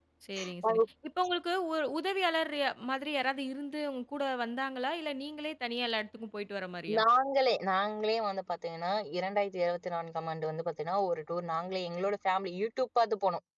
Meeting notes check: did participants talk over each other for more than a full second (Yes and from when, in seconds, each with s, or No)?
No